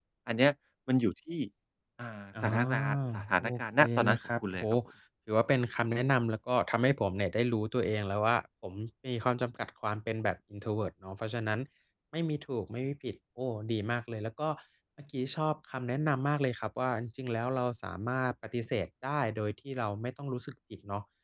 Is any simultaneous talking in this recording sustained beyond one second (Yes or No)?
Yes